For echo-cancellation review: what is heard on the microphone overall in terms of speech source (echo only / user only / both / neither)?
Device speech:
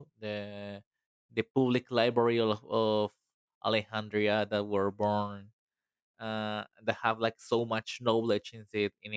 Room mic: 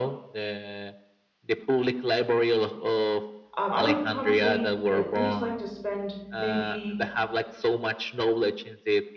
both